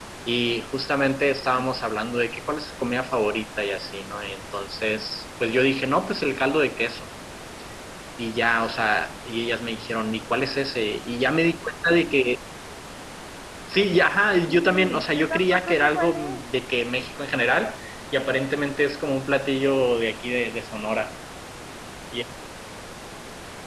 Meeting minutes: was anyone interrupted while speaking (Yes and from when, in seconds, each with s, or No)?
Yes, from 14.5 s